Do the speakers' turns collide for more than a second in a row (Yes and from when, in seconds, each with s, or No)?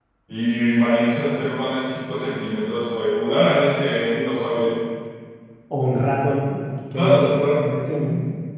Yes, from 6.9 s